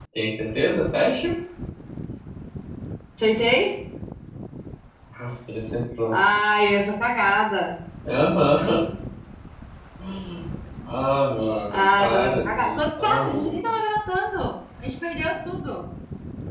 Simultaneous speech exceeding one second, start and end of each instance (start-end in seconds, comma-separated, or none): 11.7-13.5